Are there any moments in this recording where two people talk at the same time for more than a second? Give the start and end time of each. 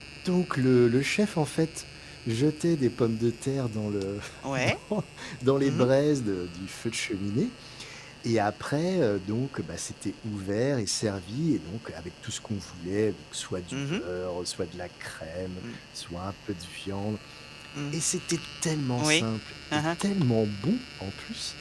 none

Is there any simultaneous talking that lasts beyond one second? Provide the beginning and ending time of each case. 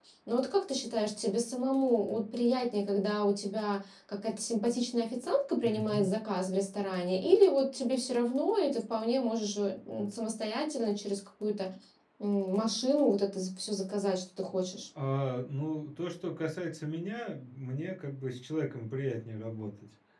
none

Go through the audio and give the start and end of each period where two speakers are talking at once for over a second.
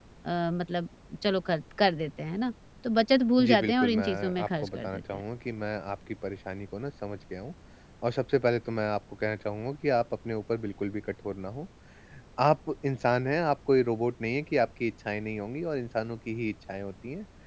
3.4-5.2

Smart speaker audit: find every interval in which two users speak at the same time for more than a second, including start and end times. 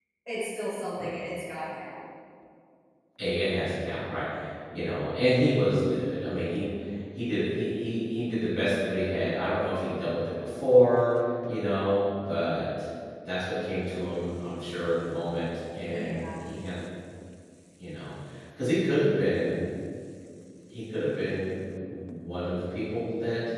none

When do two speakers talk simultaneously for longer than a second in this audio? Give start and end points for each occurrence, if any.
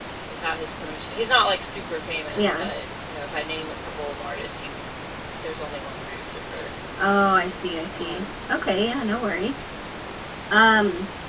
none

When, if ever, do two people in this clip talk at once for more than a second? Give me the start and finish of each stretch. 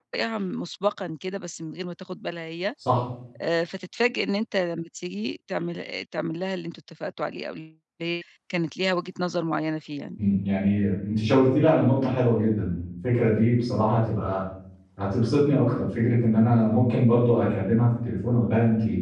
none

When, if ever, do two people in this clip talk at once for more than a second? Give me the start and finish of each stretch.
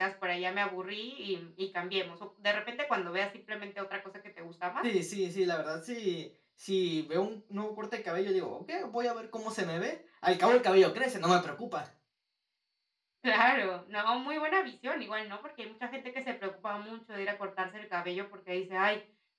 none

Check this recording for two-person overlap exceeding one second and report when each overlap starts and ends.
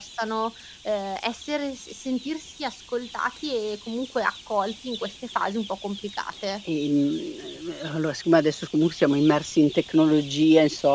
none

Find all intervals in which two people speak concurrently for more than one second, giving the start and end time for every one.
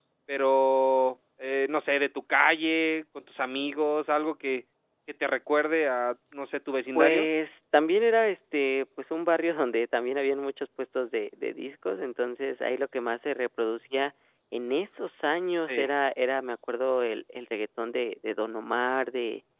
none

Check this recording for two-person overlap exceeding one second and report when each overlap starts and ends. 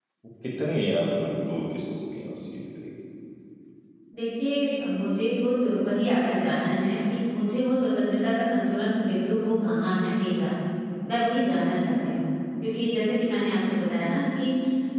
none

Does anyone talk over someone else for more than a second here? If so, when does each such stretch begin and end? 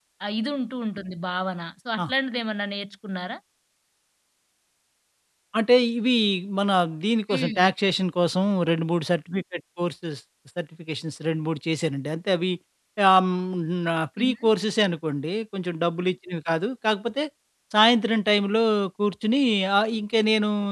none

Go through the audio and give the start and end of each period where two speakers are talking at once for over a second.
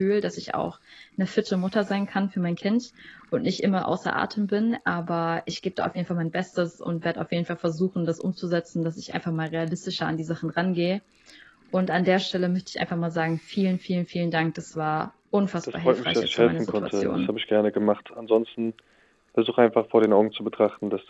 15.7-17.3

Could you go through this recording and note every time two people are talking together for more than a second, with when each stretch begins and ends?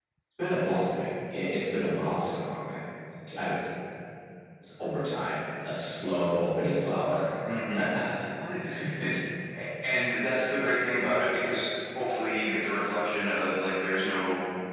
none

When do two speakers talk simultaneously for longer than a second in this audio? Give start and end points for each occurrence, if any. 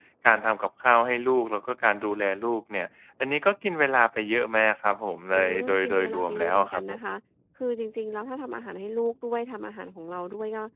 5.3-7.0

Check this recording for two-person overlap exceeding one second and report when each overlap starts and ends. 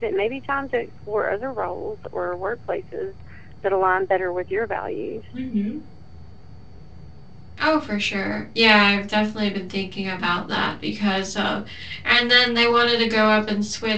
none

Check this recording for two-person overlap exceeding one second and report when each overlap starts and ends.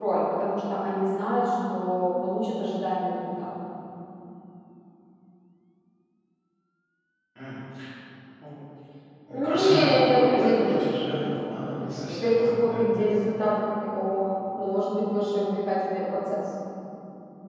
9.3-13.0

